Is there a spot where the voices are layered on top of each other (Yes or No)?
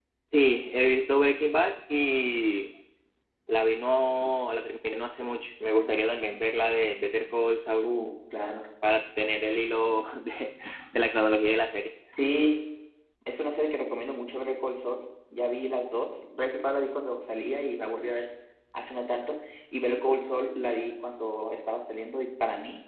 No